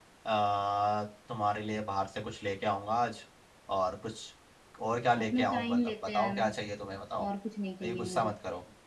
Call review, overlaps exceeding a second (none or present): present